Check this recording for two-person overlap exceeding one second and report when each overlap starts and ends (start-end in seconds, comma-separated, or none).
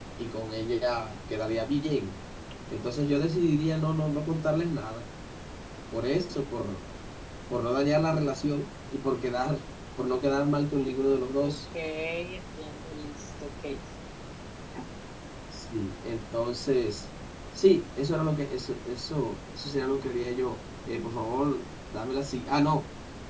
none